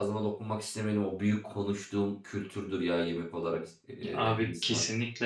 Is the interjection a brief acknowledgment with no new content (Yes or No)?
No